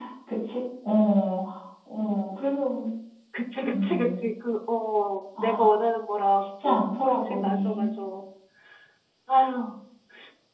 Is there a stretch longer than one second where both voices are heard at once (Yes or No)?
Yes